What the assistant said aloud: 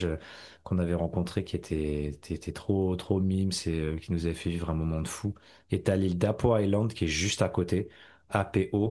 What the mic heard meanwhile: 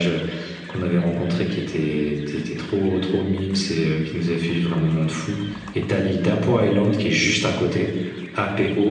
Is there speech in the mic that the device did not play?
No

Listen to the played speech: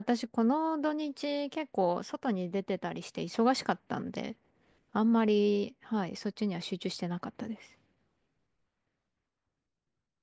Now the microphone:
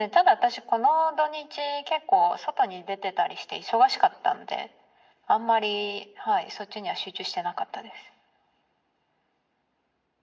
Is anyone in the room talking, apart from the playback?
No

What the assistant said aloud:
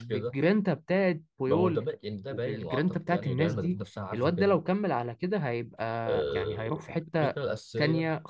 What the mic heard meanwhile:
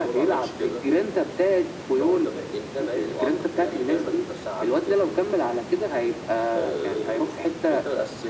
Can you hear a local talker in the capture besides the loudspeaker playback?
No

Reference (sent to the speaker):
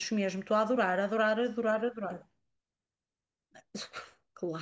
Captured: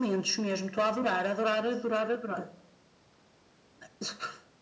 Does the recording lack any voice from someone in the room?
Yes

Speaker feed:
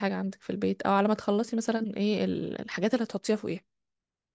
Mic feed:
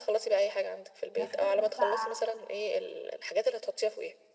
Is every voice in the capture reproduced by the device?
No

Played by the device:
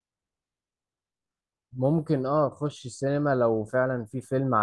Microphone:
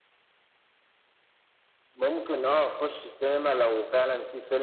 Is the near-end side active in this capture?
No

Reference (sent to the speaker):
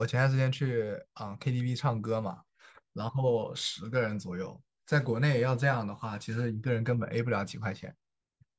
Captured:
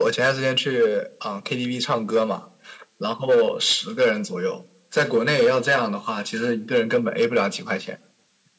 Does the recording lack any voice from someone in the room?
Yes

